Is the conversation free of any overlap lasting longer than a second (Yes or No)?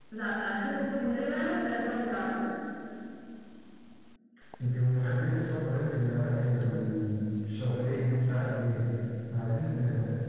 Yes